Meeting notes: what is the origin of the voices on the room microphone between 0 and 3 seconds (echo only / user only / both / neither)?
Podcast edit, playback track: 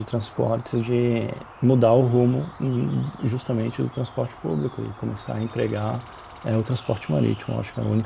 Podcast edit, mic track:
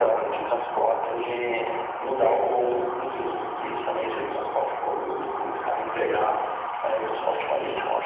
echo only